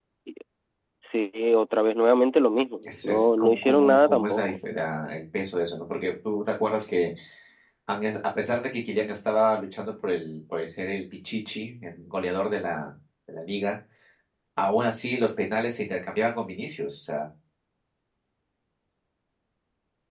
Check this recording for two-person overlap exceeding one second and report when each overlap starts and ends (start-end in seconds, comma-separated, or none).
2.8-4.5